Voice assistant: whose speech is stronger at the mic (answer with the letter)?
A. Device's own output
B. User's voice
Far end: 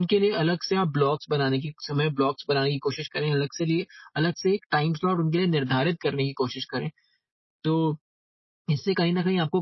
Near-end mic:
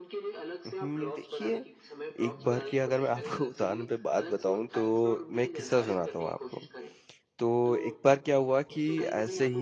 B